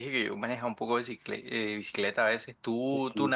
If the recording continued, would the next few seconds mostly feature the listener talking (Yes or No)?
Yes